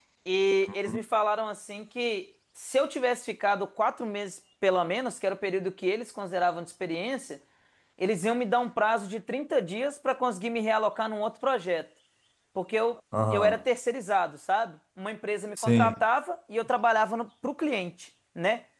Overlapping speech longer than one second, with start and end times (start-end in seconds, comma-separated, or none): none